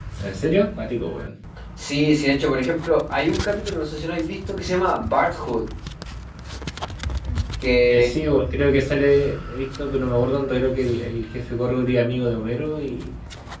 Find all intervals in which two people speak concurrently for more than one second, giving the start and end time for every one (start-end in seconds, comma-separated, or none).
none